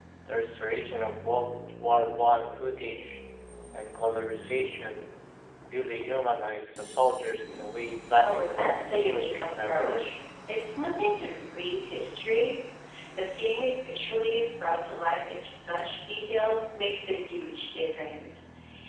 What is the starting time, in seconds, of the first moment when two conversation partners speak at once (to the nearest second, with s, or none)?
8 s